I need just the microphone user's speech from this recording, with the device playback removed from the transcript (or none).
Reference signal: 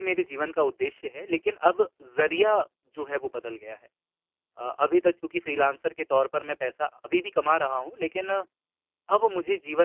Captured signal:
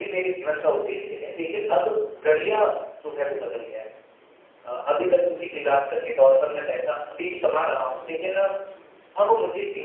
none